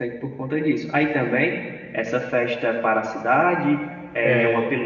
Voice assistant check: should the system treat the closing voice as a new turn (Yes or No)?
No